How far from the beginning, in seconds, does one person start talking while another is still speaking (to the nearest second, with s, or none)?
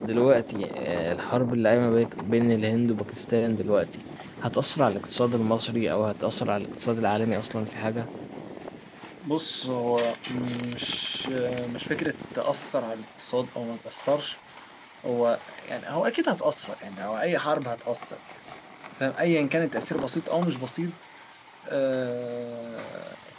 none